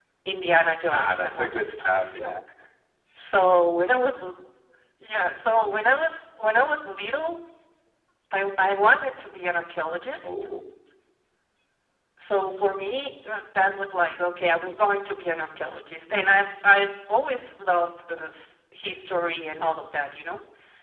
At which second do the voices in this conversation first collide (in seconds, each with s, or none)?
0.9 s